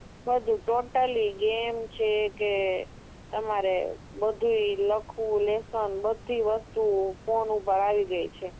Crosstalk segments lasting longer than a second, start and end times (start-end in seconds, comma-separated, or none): none